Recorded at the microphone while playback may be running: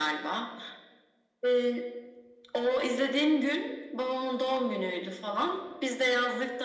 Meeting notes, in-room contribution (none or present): none